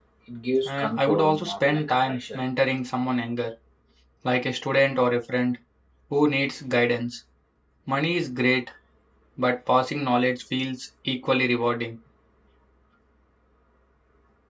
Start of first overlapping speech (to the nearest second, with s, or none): 1 s